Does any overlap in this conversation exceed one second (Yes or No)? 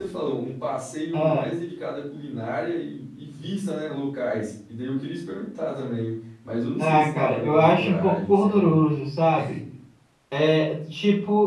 Yes